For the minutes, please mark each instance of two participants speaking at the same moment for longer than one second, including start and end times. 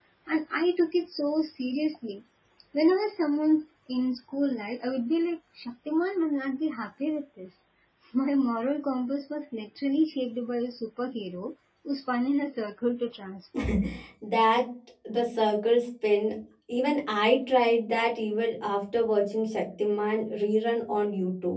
none

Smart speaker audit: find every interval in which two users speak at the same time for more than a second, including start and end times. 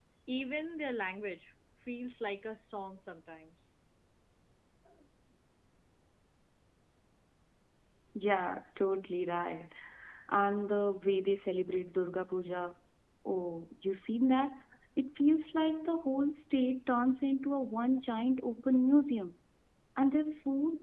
none

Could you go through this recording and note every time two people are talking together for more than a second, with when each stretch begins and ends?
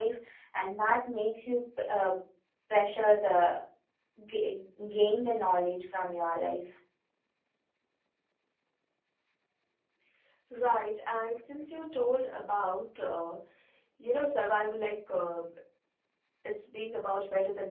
none

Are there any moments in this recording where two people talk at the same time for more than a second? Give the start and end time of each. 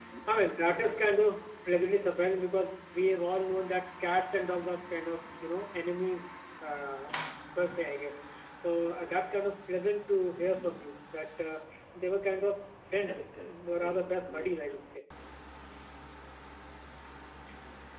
13.1-14.5

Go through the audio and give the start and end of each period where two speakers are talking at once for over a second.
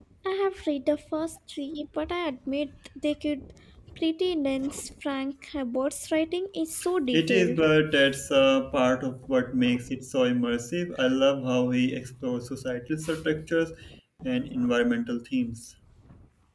none

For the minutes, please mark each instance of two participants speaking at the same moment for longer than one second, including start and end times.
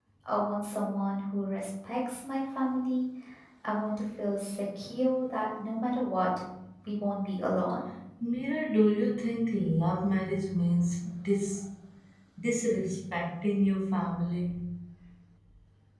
none

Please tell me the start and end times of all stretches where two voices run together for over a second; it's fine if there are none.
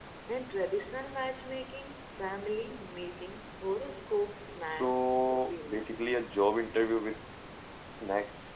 4.7-6.0

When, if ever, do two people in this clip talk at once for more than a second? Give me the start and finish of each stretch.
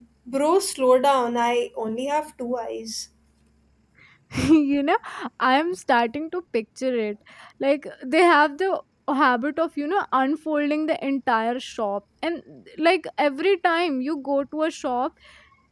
none

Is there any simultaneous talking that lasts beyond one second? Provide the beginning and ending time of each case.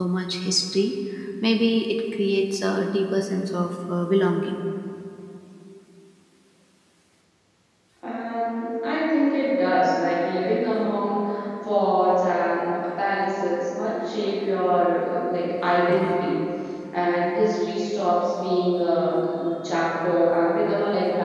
none

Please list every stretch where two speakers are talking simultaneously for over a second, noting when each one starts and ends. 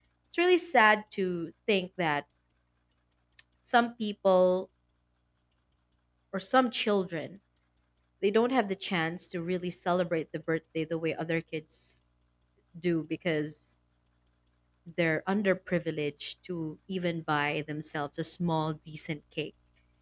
none

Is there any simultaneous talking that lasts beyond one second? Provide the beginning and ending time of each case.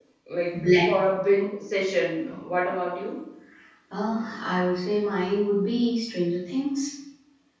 none

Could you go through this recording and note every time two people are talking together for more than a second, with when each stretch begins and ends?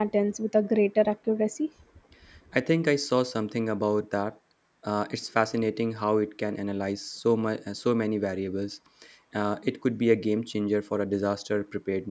none

